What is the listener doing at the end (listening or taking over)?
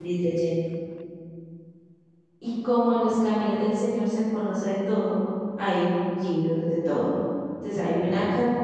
listening